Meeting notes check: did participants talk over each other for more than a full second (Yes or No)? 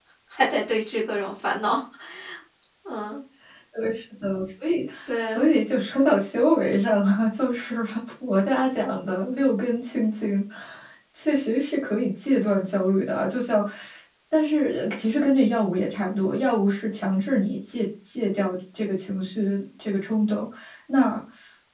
No